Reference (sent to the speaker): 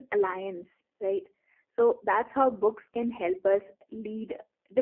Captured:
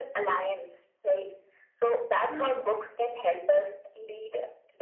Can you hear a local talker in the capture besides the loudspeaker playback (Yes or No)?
Yes